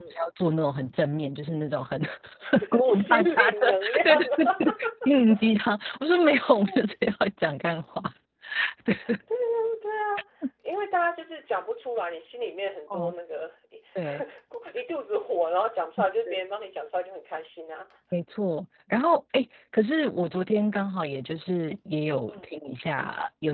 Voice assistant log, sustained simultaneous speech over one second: present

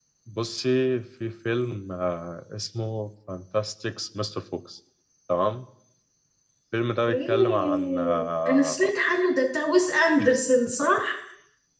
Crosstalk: present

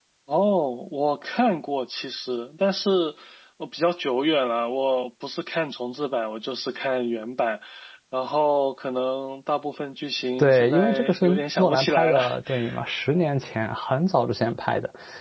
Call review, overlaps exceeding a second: present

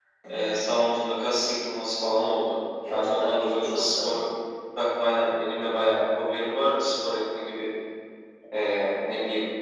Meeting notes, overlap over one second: present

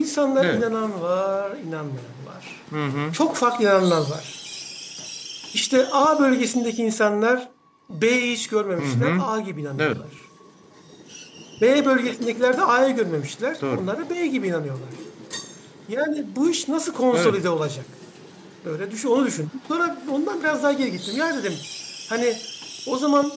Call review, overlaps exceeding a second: none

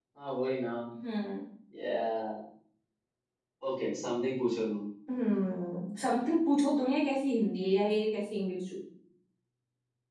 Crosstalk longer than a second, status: none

